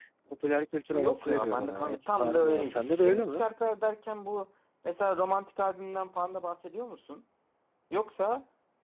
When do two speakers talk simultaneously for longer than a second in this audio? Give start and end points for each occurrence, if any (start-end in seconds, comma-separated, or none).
0.9-3.4